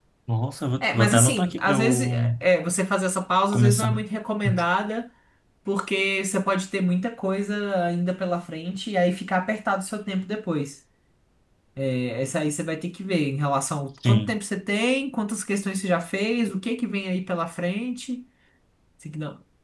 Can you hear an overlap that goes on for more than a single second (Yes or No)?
Yes